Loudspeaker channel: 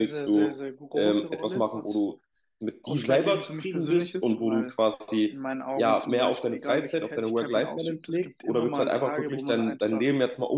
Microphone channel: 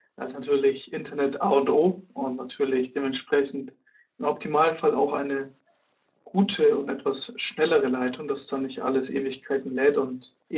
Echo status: none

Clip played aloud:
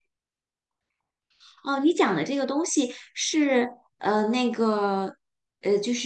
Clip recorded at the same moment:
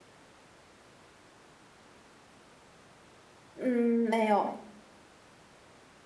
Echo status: none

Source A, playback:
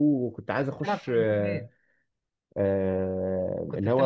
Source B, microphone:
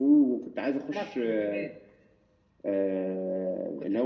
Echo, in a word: present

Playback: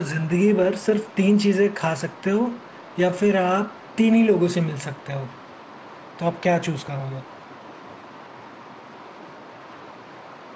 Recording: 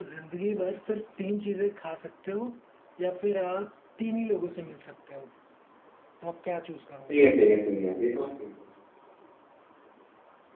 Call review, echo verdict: present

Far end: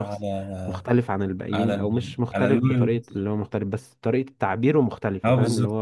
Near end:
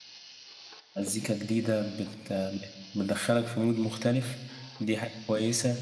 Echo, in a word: none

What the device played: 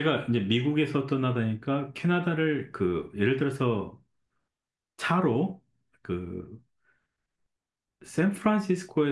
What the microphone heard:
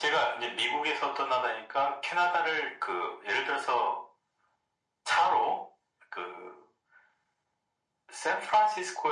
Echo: present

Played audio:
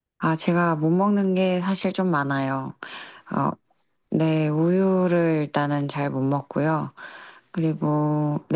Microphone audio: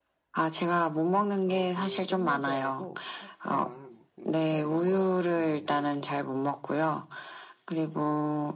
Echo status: present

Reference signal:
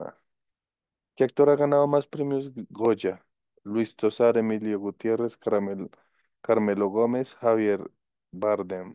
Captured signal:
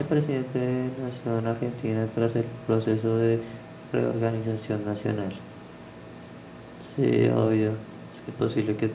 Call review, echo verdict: none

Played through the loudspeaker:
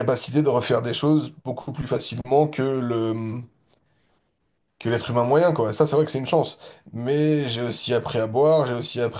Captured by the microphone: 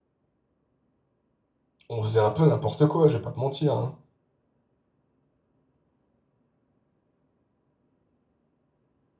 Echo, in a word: none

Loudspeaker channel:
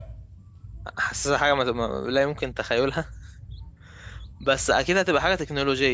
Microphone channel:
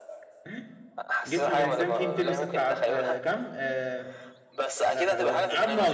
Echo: present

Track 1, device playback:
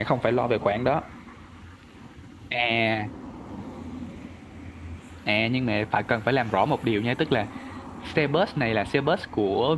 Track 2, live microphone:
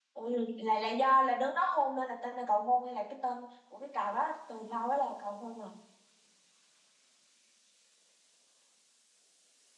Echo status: none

